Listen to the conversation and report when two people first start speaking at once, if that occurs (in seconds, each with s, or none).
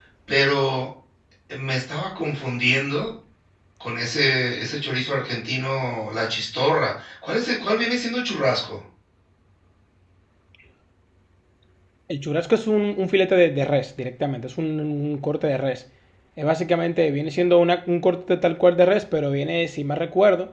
none